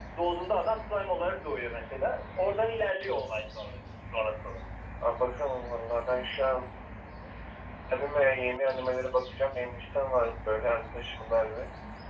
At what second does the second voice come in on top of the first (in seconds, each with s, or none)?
none